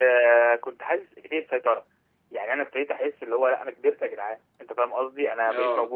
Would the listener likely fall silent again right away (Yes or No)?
Yes